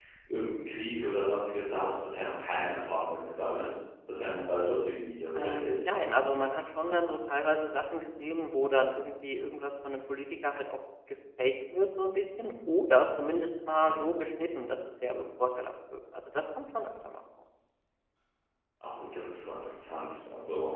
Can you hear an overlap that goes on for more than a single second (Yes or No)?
No